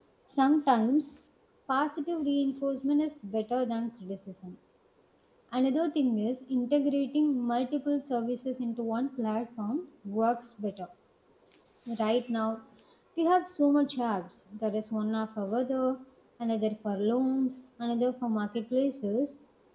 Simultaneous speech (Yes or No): No